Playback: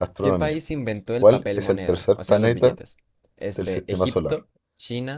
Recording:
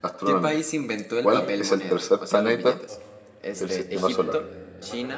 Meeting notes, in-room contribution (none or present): present